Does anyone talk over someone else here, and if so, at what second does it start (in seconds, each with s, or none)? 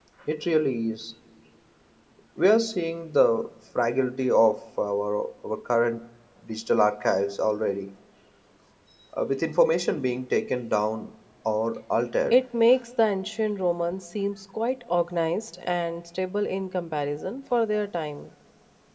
none